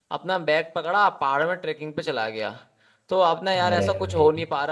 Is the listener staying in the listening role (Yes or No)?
Yes